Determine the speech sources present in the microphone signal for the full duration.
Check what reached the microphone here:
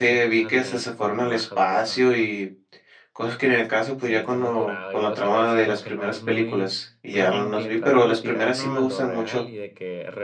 both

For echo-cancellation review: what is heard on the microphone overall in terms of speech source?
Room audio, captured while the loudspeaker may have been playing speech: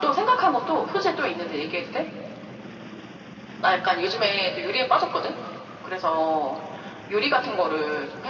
echo only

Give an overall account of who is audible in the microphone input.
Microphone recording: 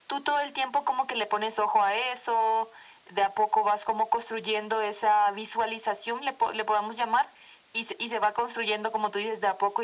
echo only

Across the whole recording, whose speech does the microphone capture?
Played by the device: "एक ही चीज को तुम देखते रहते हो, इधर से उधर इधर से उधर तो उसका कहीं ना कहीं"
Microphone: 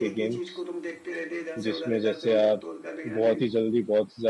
both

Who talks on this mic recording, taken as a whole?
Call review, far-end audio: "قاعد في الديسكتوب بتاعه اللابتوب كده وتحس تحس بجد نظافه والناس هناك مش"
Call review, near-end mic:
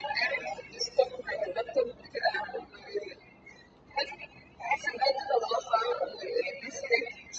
echo only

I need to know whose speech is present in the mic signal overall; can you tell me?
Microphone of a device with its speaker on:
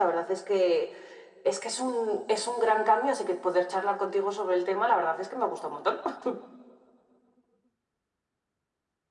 echo only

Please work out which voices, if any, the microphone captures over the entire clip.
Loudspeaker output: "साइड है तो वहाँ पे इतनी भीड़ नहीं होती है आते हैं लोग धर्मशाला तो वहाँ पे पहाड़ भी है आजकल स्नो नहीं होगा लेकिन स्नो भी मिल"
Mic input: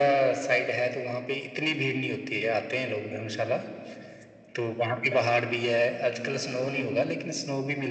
echo only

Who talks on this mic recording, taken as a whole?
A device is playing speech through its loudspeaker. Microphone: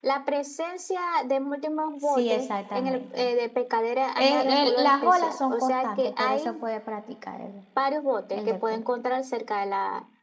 both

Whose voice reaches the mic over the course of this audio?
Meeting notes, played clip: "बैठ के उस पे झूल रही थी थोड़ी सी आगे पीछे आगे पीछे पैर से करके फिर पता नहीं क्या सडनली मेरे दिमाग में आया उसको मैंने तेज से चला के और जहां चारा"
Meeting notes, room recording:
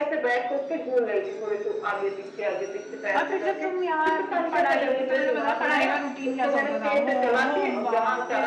both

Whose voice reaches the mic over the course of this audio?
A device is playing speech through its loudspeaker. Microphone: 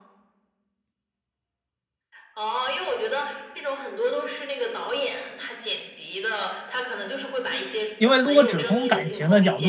both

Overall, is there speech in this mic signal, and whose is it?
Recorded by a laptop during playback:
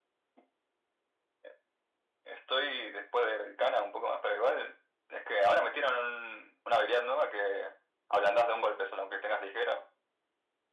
echo only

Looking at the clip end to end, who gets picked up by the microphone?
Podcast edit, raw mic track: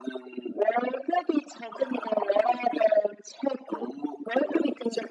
echo only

